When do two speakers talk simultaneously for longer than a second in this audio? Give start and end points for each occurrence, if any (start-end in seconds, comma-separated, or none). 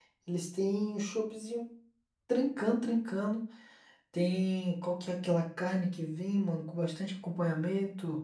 none